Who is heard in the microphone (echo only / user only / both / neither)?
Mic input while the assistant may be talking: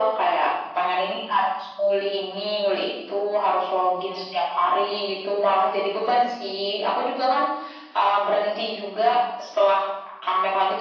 echo only